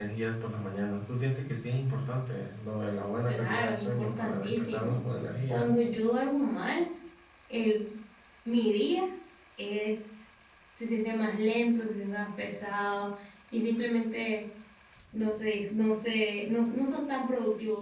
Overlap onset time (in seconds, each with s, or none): 3.3 s